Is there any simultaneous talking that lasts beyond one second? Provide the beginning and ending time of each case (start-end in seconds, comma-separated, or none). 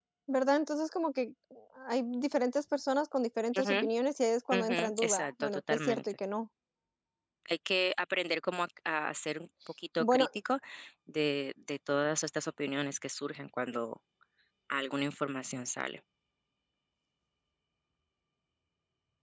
4.5-6.0